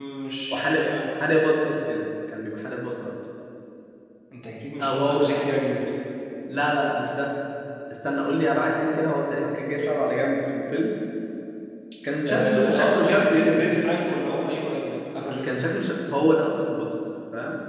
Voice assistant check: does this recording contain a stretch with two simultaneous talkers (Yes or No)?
Yes